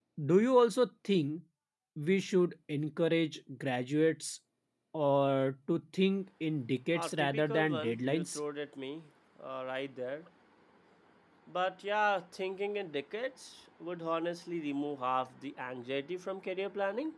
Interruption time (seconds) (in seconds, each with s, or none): 7.0 s